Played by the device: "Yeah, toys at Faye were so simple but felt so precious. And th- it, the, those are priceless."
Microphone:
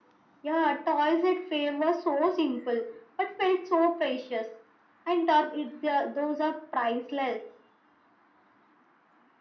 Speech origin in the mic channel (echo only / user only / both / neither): echo only